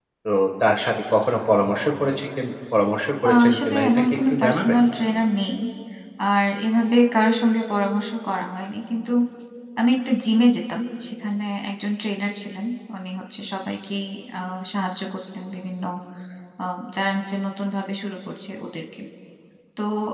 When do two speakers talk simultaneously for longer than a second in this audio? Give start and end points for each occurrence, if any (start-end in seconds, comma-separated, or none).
3.2-4.8